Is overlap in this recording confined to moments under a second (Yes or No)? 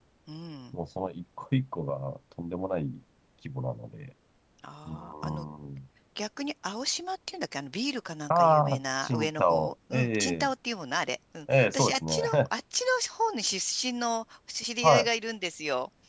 No